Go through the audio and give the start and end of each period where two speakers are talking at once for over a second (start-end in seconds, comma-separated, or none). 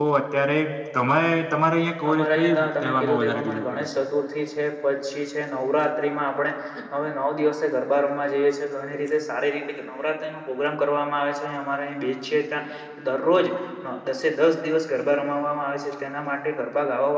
2.1-3.9